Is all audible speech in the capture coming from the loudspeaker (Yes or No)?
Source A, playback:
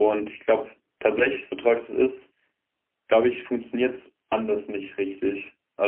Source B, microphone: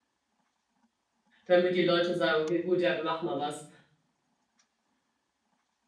No